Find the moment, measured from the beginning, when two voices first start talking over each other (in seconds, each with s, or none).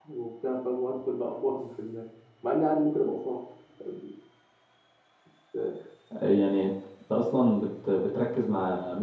none